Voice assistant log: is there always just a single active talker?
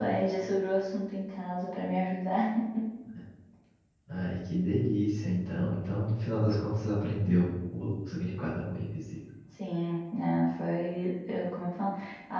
Yes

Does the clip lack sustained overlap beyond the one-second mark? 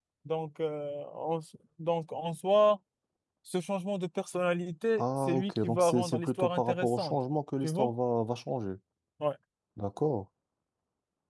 No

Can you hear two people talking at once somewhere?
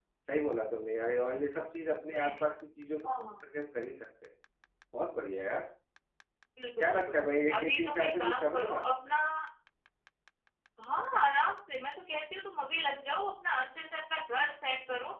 Yes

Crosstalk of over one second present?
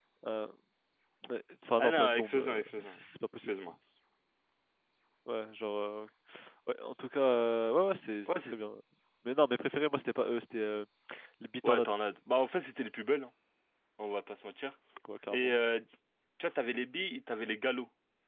Yes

